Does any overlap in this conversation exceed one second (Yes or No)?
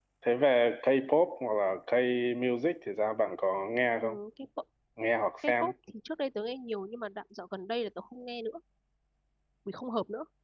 No